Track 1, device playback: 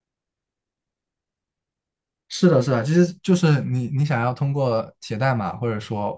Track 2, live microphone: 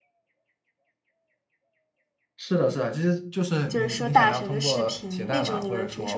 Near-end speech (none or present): present